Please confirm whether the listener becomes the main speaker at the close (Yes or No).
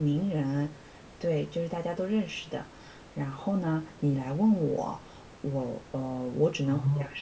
No